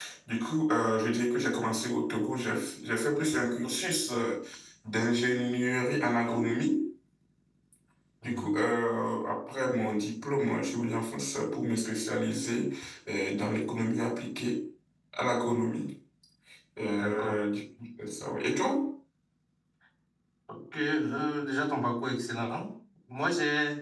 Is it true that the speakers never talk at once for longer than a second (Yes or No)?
Yes